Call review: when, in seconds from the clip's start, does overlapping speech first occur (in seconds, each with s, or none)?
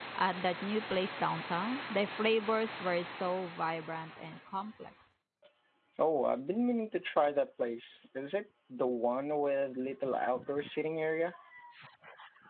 none